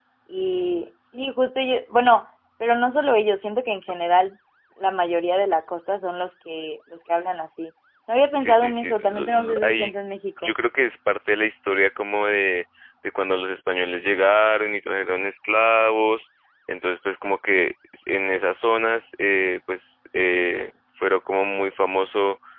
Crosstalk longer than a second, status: present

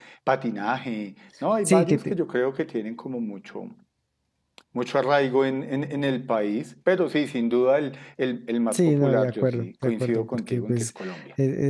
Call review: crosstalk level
present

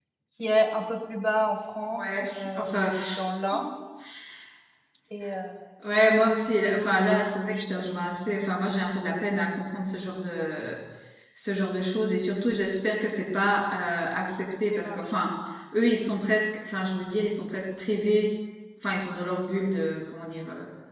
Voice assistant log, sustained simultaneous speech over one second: present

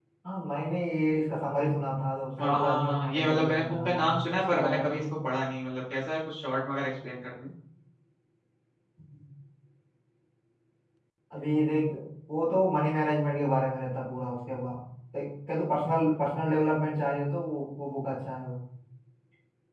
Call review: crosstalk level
present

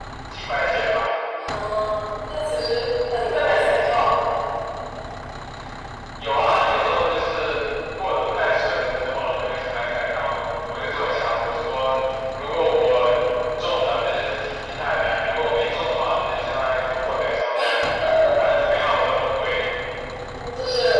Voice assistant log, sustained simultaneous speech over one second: none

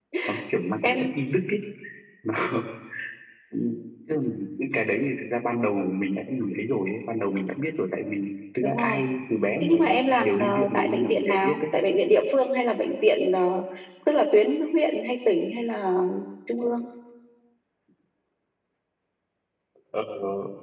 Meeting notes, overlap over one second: present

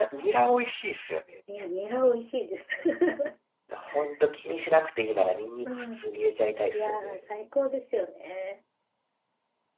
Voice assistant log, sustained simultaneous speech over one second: none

